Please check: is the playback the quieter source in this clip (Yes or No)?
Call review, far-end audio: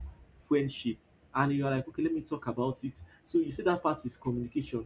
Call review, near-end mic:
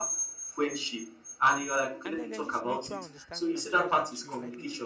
No